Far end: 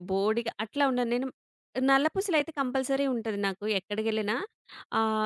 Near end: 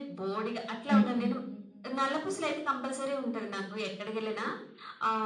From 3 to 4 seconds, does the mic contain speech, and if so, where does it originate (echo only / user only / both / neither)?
echo only